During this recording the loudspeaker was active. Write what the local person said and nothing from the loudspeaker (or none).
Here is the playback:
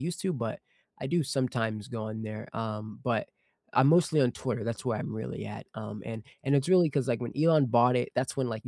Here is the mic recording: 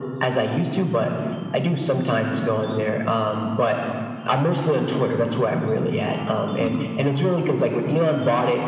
Mhm.